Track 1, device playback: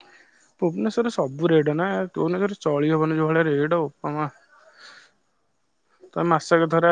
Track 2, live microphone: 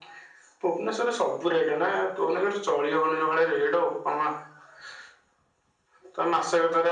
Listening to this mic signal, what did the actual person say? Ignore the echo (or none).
none